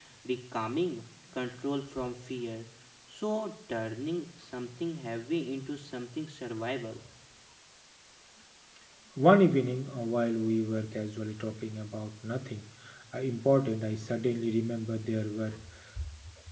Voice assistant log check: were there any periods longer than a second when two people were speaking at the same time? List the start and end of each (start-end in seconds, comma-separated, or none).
none